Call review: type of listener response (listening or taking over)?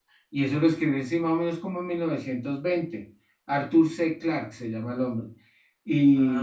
listening